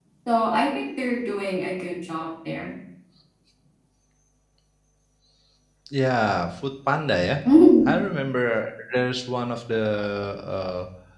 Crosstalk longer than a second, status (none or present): none